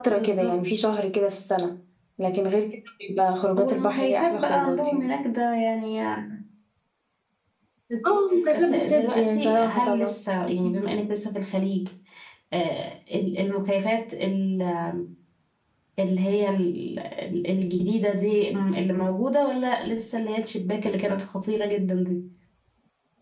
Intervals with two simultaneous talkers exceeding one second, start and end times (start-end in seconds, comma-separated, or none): 3.6-5.1, 8.5-10.2